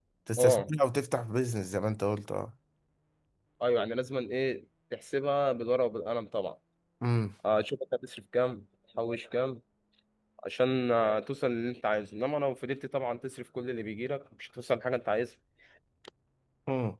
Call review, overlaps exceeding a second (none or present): none